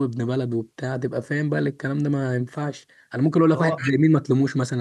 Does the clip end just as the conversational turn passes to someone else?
No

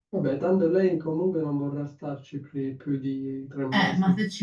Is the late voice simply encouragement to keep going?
No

